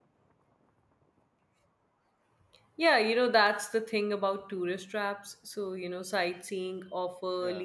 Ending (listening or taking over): listening